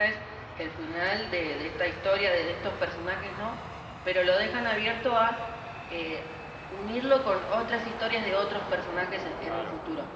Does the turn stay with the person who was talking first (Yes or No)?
No